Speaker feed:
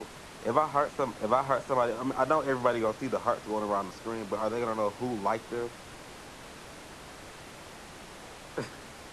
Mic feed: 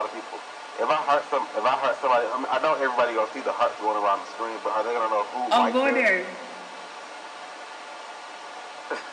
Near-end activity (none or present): present